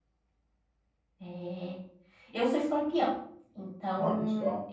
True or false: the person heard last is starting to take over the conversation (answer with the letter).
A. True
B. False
B